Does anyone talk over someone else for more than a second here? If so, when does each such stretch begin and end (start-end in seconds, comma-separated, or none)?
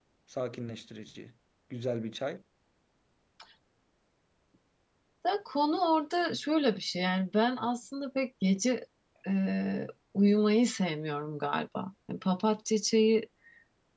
none